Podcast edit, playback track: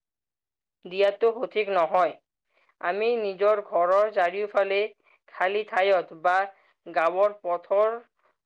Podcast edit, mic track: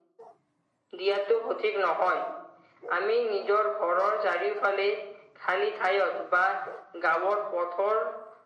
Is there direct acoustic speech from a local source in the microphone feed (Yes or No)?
No